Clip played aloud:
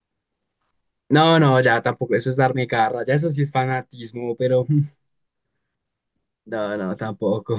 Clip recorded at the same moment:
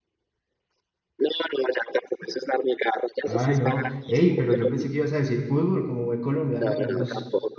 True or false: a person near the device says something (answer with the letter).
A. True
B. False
A